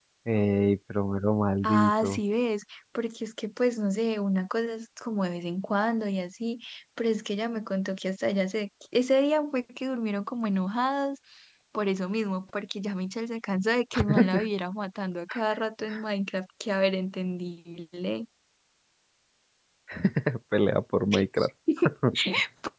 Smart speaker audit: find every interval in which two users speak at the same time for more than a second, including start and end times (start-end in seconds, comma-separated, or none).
none